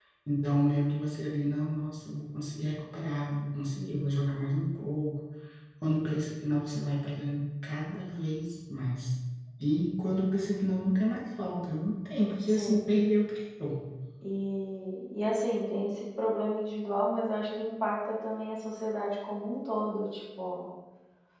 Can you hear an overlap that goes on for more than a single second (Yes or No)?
No